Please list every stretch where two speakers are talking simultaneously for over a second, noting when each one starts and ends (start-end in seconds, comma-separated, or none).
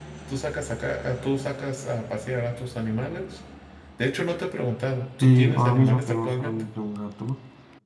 5.2-6.7